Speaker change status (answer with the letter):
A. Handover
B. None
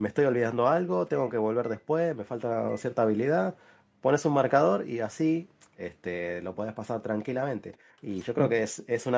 B